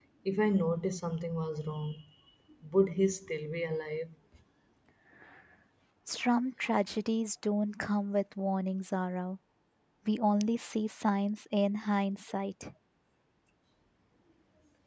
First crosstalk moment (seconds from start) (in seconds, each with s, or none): none